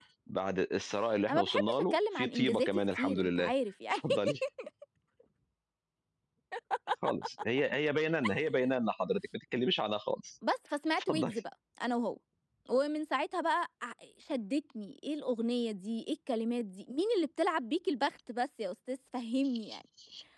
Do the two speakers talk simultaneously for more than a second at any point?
Yes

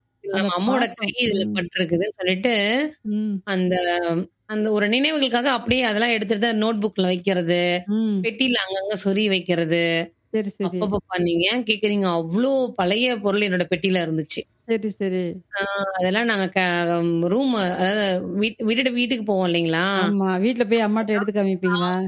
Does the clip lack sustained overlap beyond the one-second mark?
No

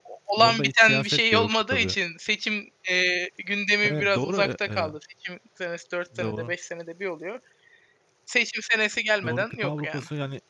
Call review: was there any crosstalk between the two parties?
Yes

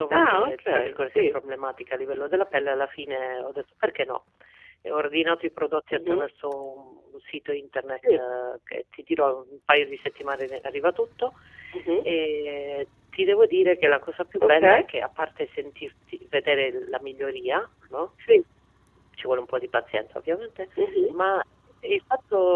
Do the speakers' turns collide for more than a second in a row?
Yes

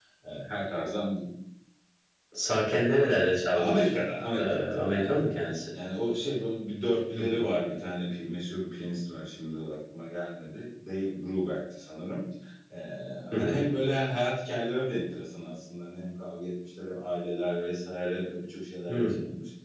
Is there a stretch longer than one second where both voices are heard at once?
Yes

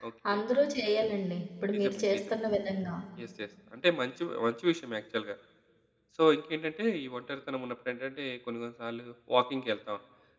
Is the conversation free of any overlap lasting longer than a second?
Yes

